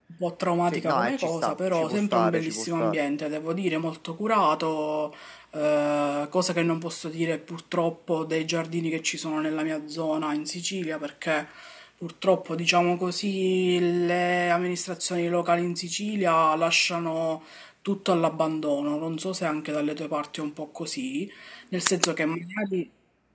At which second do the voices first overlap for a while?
1 s

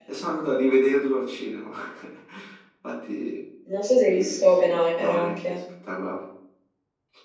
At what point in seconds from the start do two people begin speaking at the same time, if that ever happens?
4 s

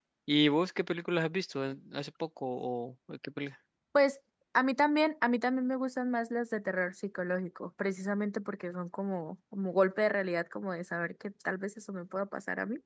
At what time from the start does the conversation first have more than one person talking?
none

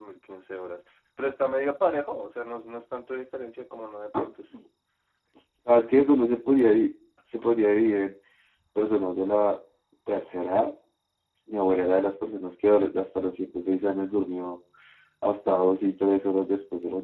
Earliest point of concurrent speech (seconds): none

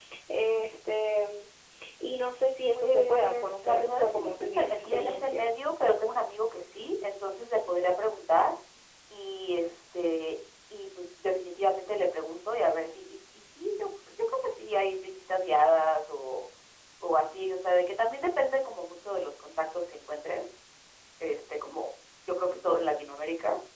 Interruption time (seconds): 3 s

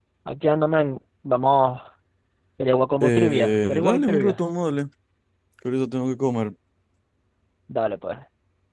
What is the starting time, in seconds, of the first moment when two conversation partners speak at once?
3 s

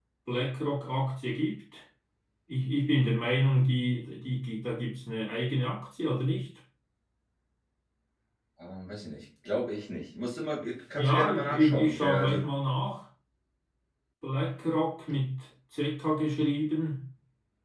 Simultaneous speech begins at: 11 s

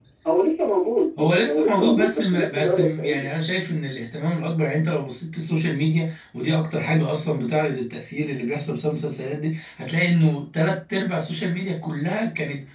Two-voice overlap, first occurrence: 1 s

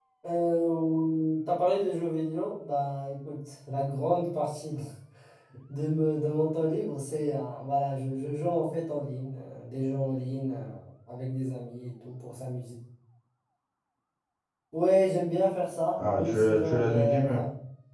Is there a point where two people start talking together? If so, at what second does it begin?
16 s

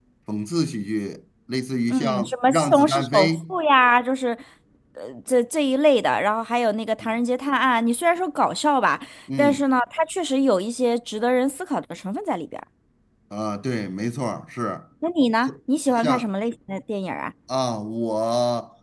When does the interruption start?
2 s

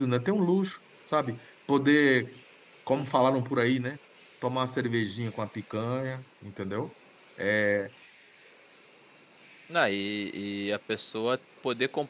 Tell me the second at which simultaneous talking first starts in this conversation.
none

